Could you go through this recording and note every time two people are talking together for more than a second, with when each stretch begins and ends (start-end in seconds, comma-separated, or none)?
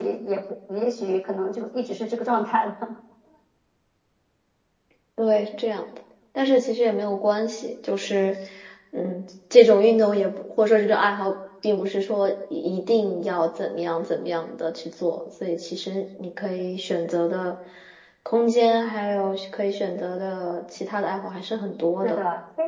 none